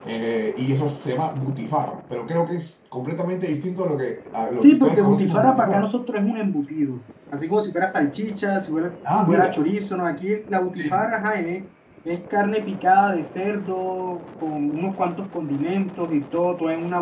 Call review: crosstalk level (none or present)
present